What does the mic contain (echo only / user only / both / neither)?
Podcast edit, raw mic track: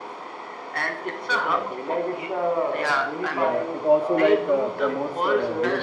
both